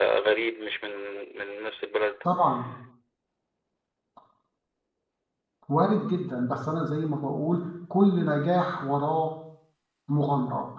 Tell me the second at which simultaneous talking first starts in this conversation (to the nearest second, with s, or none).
none